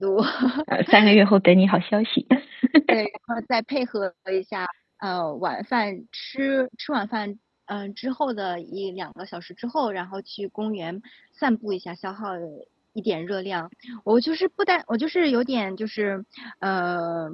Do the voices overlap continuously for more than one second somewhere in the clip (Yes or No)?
No